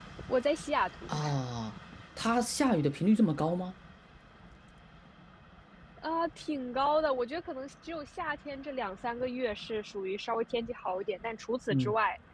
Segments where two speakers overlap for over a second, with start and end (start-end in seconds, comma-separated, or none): none